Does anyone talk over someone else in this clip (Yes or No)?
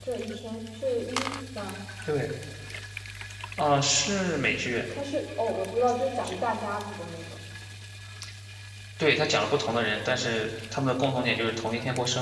No